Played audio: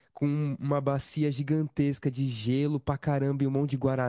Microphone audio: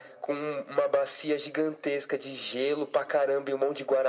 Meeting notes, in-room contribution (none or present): none